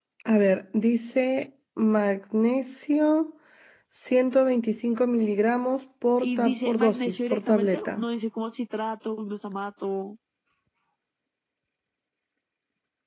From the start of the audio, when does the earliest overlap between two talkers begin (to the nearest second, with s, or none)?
6 s